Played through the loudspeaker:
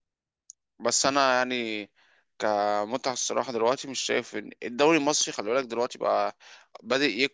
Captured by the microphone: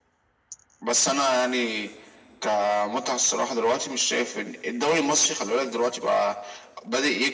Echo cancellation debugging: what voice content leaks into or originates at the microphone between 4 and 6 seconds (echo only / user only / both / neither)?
echo only